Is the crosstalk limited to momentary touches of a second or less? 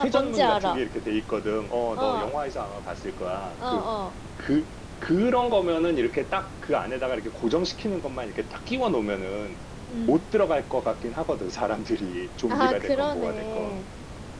No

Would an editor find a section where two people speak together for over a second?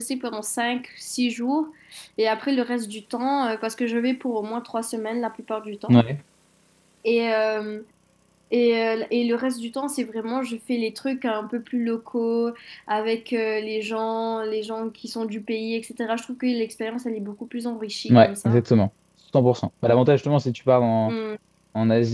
No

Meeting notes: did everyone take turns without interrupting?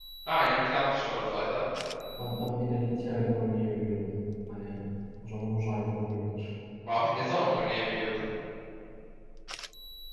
Yes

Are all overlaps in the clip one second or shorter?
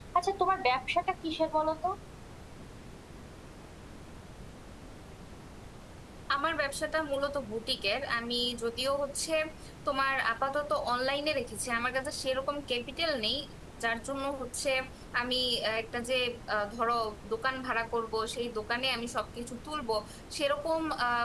Yes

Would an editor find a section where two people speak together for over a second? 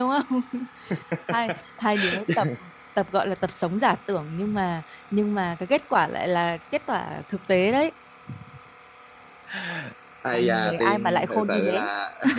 Yes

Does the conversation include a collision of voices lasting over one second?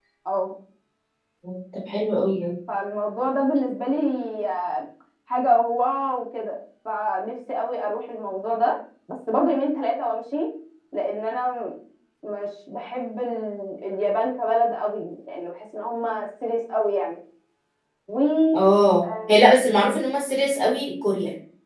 No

